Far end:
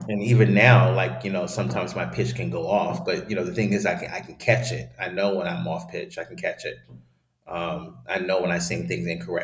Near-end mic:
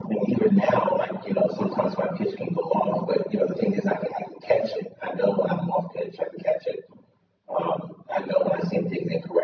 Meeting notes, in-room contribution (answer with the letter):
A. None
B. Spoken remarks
A